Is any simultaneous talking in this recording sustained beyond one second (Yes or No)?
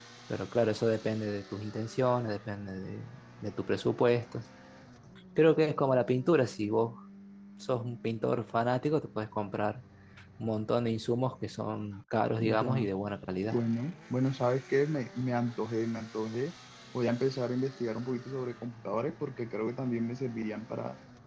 No